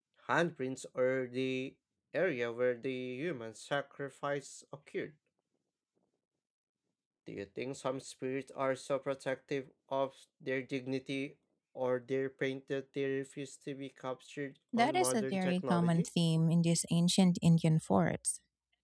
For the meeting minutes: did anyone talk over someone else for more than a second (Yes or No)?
Yes